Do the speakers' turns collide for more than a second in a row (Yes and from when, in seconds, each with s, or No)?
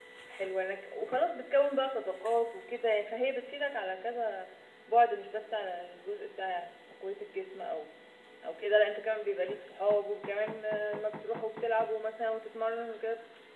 No